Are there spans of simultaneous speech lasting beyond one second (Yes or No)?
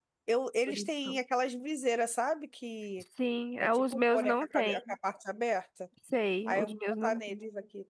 Yes